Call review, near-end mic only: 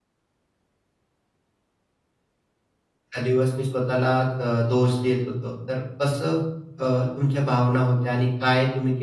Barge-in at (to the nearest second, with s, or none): 3 s